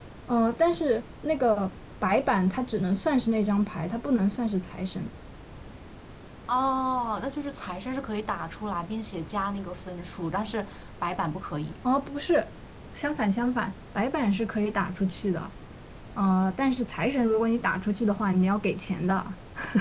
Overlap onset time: none

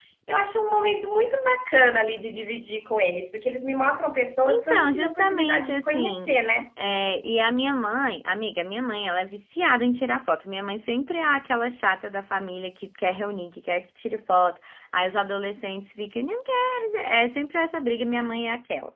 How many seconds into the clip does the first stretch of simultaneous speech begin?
4.5 s

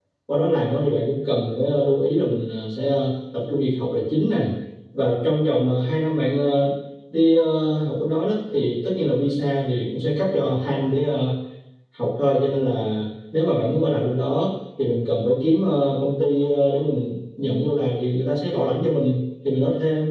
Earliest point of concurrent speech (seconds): none

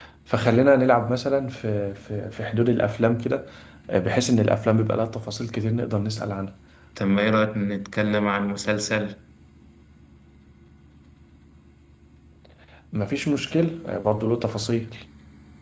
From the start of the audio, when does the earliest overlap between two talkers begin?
none

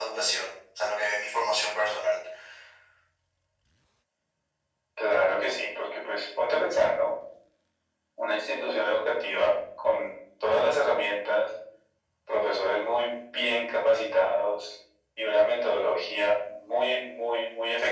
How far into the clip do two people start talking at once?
none

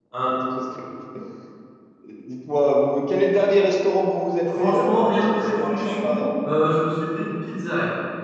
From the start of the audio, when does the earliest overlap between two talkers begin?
4.5 s

